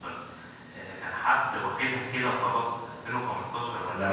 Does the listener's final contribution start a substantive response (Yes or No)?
No